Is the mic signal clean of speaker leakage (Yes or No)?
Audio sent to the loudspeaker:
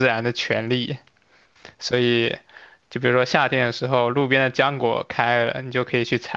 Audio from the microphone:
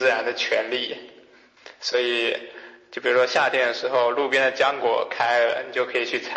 No